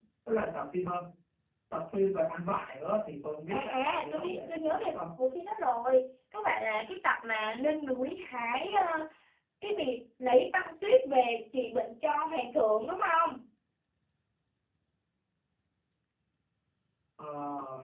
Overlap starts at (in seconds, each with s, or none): 3.5 s